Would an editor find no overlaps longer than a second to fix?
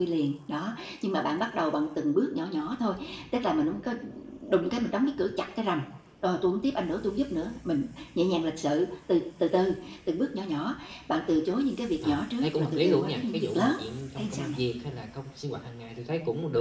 No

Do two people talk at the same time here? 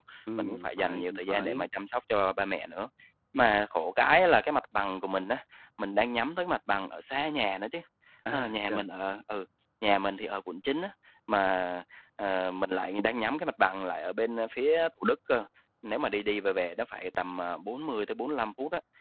Yes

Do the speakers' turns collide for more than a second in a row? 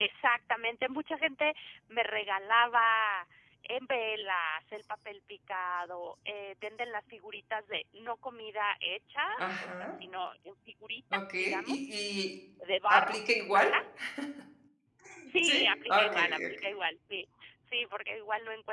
Yes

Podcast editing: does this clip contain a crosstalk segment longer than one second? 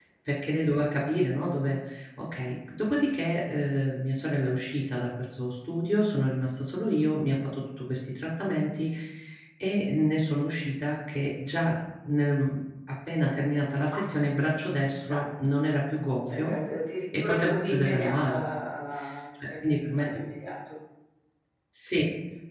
Yes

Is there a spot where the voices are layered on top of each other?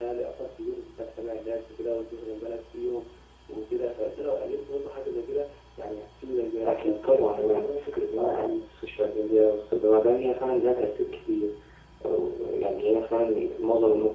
Yes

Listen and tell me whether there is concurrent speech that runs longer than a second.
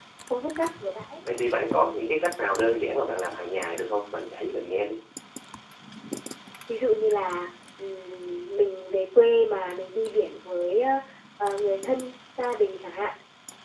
No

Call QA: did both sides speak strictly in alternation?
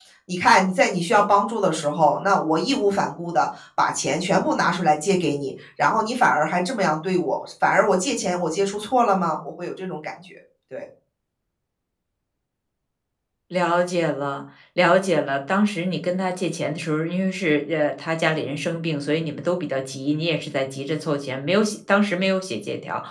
Yes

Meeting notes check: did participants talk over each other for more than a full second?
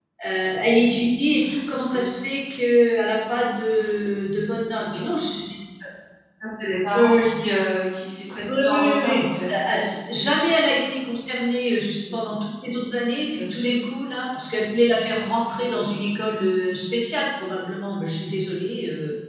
Yes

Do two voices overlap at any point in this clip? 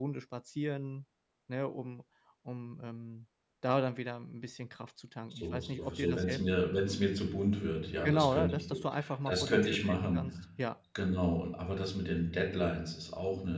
Yes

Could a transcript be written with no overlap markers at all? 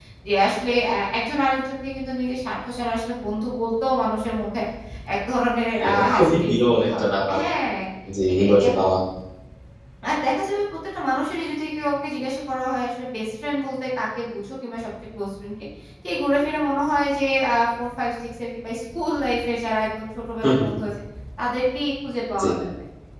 No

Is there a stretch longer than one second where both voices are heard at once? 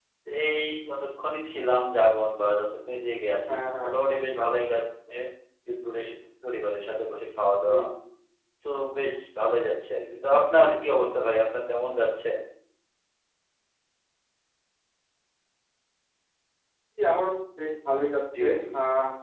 No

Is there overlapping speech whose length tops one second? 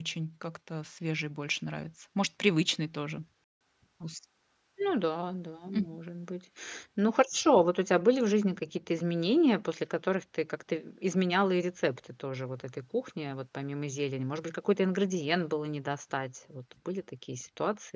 No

